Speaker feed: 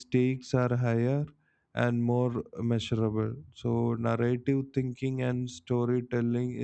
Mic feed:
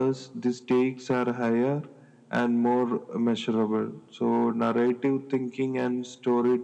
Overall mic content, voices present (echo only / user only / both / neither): echo only